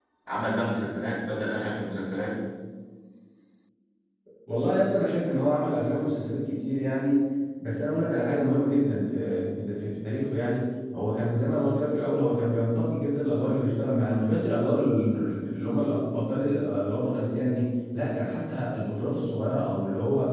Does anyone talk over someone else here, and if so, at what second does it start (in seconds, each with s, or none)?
none